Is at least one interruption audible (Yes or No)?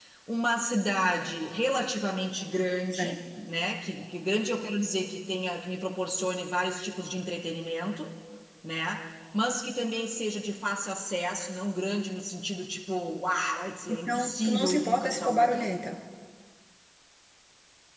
Yes